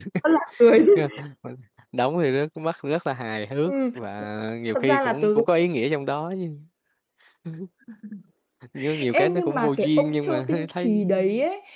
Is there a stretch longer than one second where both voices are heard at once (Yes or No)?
Yes